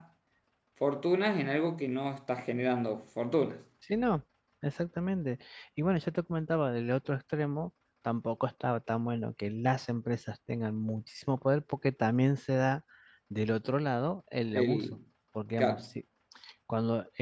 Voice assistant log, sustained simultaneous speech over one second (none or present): none